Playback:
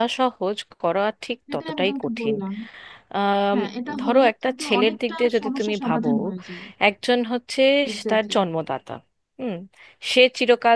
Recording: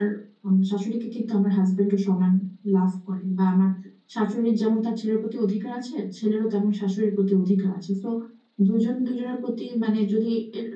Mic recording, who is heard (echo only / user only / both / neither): user only